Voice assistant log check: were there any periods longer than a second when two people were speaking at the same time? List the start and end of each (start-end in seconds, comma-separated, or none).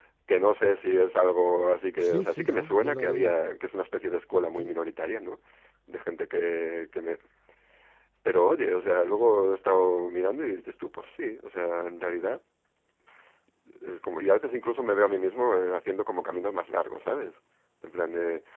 2.0-3.3